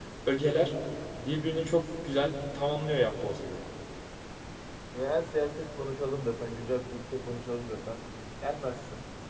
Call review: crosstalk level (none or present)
none